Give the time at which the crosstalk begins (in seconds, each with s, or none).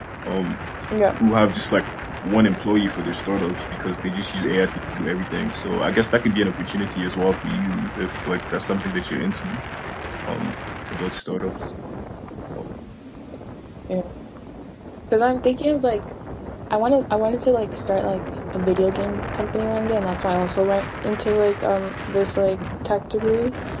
none